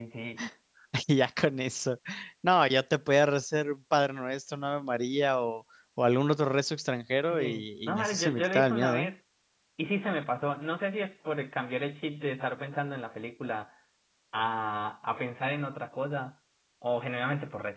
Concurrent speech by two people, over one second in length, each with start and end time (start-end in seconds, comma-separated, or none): 7.2-9.1